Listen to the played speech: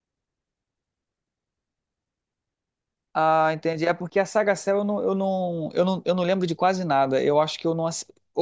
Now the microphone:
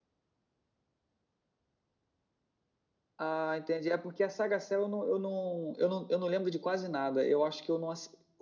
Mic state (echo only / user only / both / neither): echo only